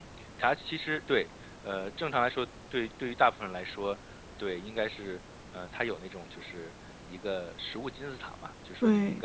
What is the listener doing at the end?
listening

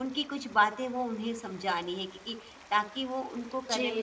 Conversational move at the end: taking over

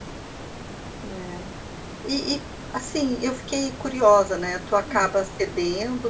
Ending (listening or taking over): listening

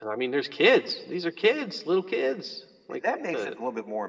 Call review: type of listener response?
taking over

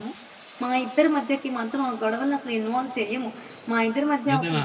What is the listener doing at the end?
listening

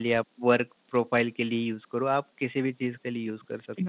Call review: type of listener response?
taking over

